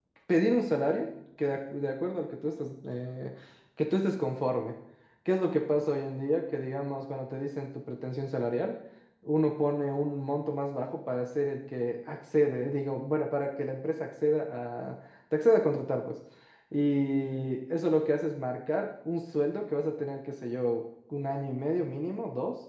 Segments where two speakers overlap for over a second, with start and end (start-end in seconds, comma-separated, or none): none